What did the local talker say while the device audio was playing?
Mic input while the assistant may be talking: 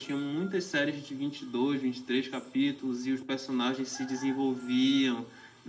none

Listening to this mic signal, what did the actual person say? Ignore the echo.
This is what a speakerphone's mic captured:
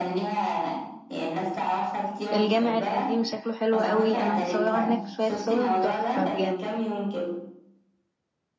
والجامع القديم شكله حلو قوي انا متصوره هناك شويه صور تحفه بجد

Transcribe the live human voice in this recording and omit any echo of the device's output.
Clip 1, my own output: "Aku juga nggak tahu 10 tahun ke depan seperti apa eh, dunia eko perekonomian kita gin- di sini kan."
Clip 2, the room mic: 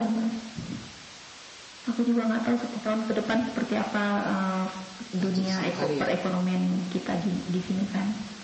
ratusan kali ya

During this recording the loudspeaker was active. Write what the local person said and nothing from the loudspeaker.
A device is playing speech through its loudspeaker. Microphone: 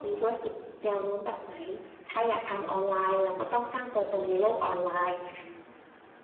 none

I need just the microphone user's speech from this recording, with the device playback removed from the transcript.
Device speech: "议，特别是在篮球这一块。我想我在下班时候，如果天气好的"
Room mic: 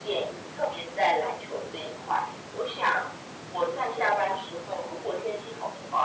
none

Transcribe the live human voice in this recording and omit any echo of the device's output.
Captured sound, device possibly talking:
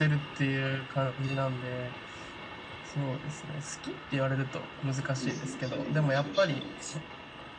うですね、去年が調子悪くて、

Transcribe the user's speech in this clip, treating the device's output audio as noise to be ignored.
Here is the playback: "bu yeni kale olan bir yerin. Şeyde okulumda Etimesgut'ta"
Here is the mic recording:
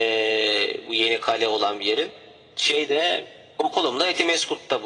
none

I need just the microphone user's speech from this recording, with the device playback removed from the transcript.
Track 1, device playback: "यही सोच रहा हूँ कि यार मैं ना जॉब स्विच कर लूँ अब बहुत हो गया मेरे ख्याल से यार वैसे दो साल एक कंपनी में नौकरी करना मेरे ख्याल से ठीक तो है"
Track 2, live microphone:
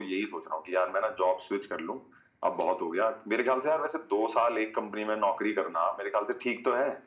none

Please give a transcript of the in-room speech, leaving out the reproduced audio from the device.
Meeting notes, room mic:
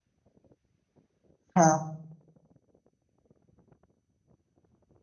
हाँ

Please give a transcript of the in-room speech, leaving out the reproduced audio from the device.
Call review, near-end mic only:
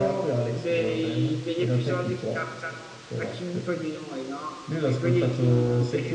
none

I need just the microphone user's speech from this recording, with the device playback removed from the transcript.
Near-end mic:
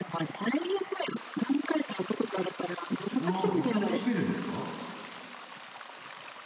あいつ頃閉めるんですか

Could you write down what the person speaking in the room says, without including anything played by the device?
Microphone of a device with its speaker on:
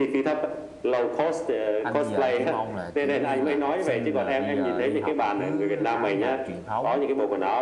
anh bây giờ anh chỉ mong là kiểu như là học sinh là bây giờ đi học là cứ áo dài truyền thống

